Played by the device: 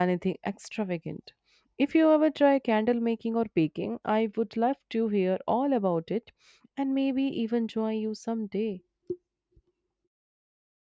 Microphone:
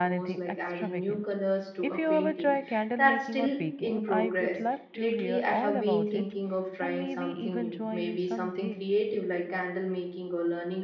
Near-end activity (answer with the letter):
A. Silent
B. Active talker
B